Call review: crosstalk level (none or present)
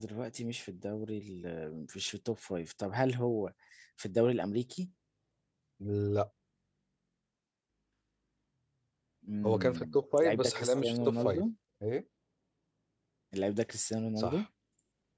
present